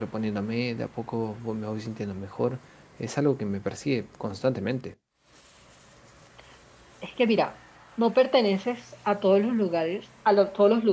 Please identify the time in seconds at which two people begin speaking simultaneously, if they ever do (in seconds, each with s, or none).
none